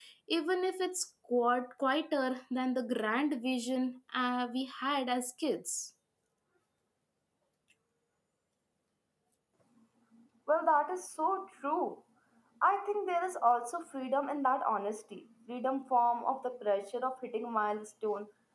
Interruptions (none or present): none